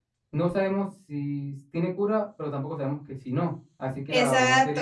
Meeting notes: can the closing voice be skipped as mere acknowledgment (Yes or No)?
No